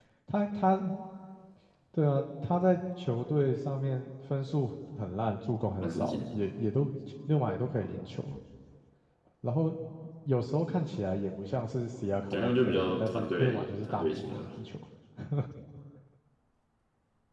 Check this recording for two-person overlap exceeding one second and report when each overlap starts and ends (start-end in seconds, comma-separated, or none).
12.3-14.5